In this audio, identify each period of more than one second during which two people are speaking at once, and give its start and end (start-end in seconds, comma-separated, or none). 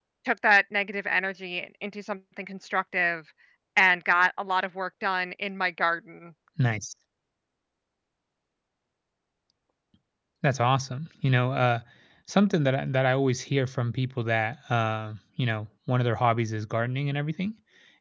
none